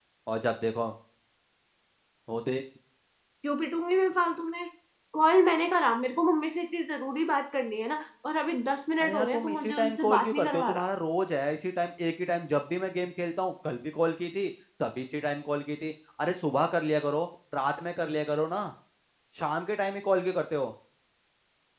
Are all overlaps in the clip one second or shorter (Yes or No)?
No